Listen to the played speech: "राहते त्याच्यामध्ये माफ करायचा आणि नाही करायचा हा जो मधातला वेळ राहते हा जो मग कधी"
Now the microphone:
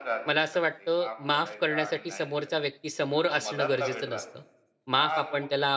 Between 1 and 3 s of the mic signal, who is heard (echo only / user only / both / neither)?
both